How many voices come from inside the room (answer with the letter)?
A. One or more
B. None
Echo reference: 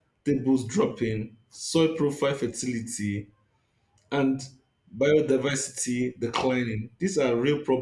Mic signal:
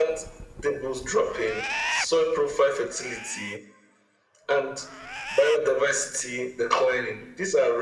B